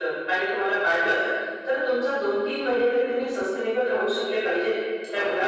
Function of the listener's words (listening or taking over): taking over